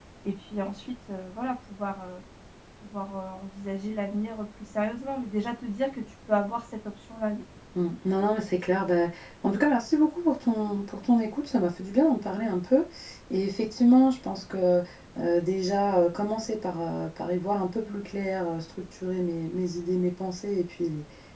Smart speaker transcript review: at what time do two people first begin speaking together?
none

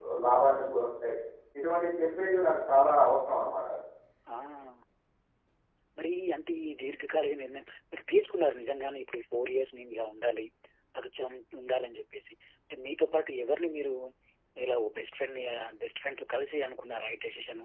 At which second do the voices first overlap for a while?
none

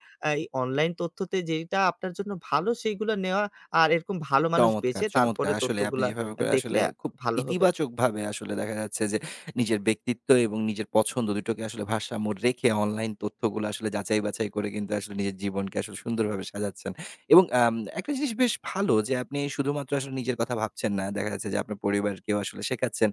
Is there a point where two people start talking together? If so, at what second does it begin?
4.6 s

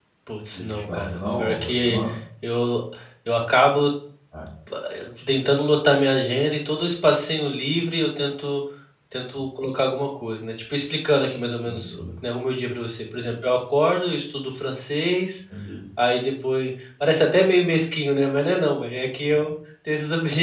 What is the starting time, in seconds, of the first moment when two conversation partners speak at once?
0.5 s

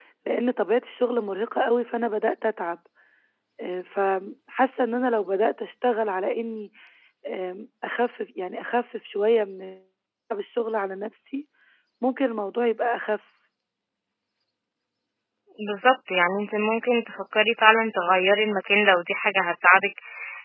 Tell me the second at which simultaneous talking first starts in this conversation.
none

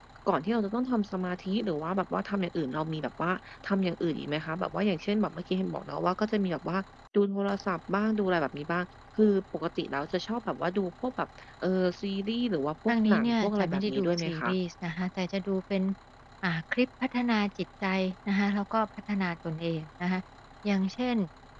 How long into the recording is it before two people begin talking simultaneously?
12.9 s

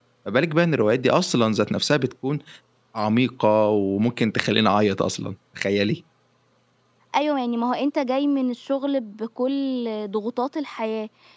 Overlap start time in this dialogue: none

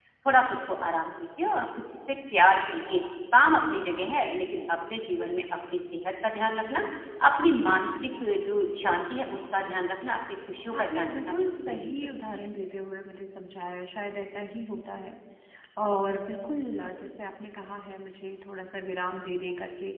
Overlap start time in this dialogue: 10.7 s

